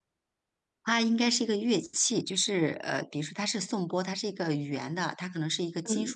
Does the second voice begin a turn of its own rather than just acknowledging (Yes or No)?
No